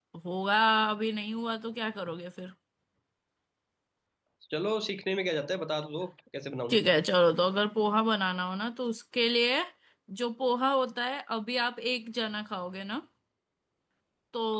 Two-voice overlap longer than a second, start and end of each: none

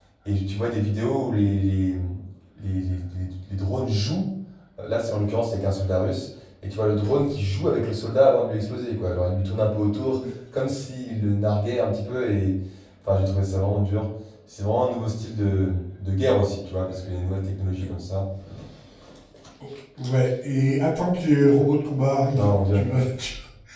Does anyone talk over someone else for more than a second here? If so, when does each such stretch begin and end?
none

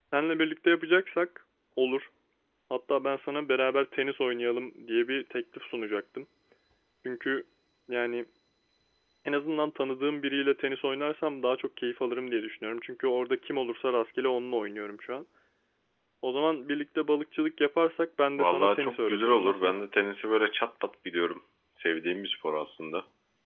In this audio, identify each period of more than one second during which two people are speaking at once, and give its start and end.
18.4-19.7

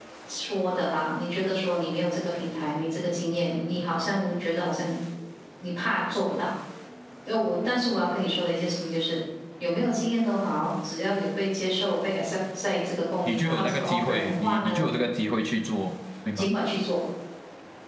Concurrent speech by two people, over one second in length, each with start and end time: 13.2-14.9

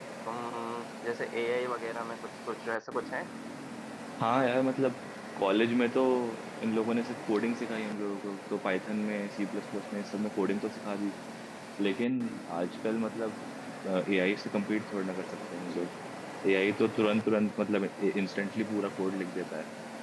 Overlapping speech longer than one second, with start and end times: none

